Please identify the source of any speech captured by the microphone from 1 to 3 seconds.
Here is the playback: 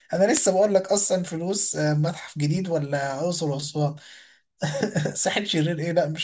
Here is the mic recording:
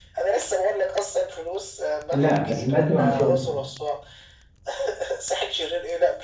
both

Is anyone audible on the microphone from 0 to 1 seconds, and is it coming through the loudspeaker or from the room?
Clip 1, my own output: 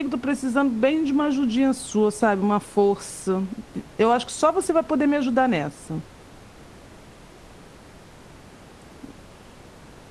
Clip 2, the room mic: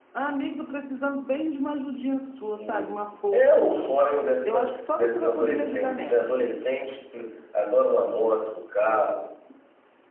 echo only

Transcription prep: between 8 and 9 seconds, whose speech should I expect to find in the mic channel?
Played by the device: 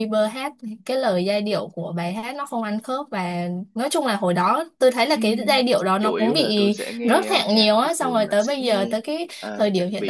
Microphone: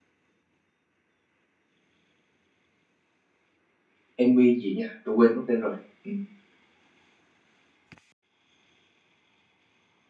neither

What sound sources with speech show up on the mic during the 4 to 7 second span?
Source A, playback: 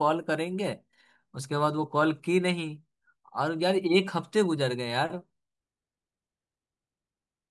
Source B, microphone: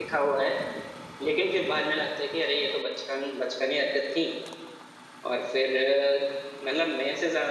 user only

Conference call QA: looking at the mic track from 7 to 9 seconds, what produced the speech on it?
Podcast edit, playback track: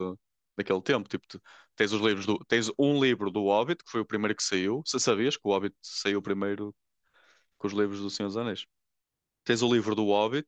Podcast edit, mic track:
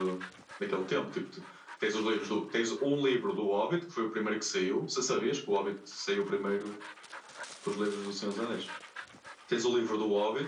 echo only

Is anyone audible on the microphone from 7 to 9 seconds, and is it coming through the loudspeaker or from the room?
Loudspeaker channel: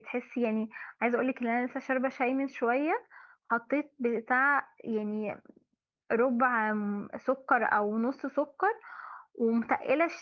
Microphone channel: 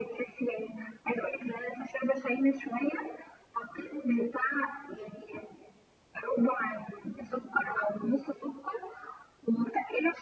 echo only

